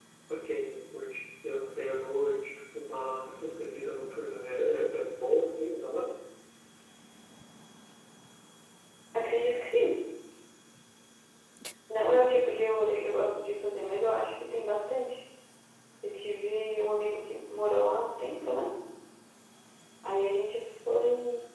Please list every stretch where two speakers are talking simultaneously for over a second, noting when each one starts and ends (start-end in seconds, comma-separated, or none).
none